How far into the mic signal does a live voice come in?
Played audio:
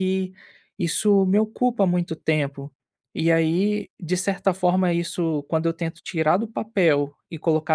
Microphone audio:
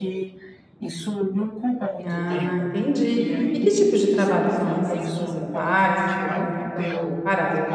2.0 s

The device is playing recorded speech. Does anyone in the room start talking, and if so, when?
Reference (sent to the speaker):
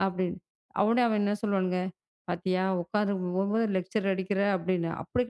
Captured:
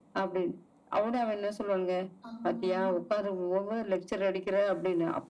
2.3 s

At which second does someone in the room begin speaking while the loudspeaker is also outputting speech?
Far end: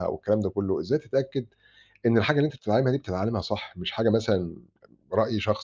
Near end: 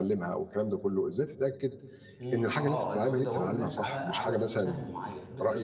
2.2 s

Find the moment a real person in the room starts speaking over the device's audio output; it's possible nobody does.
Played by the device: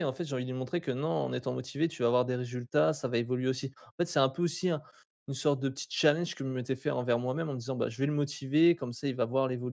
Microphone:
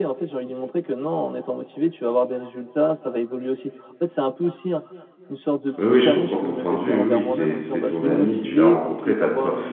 5.8 s

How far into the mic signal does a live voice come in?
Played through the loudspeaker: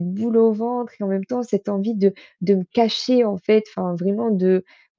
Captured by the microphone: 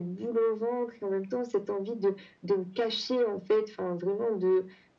none

